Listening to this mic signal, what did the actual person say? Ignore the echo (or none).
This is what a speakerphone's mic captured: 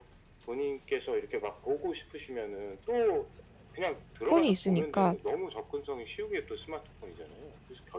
폰이 있으니까